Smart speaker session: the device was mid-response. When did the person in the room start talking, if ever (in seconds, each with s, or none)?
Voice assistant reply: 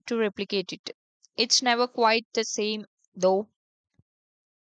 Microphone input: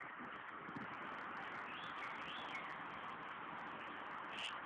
none